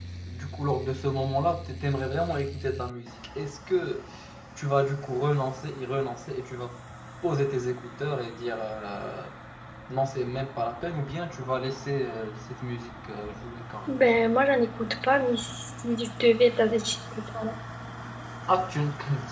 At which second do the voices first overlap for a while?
none

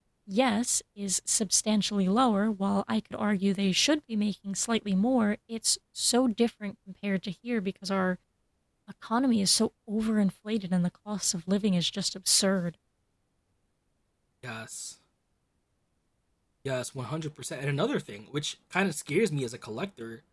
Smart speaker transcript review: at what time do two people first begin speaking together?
none

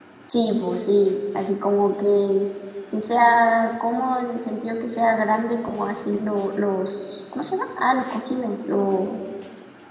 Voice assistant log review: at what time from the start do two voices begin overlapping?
none

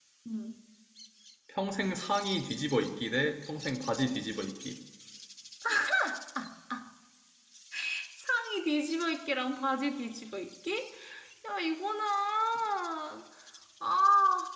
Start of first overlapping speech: none

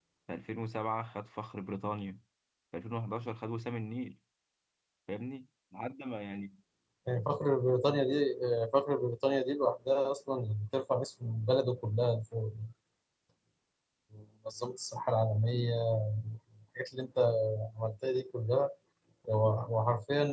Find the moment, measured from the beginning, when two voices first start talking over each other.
none

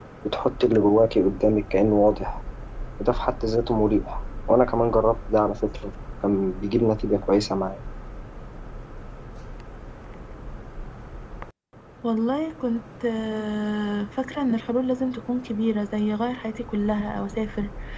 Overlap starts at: none

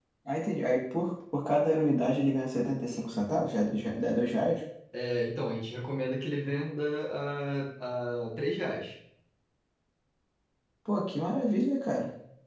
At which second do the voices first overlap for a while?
none

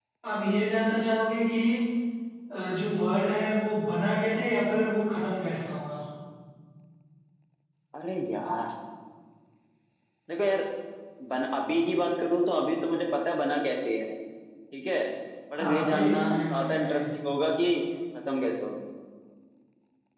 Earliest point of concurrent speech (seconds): 15.5 s

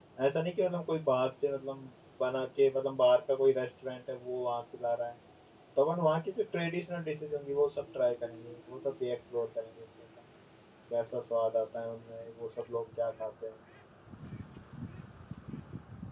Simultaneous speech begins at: none

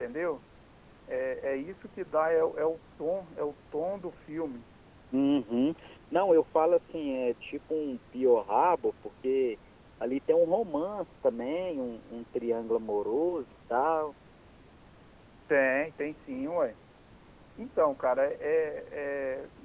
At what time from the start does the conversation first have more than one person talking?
none

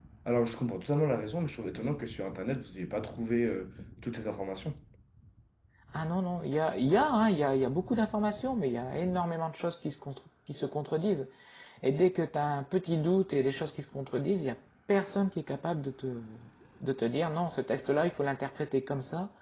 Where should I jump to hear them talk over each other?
none

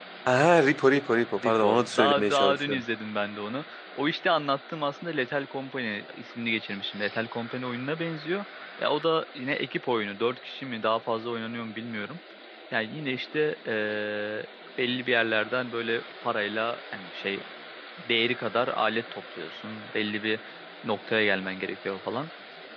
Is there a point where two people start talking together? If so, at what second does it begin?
1.4 s

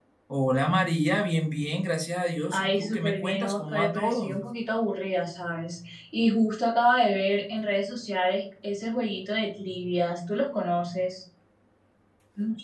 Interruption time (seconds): 2.5 s

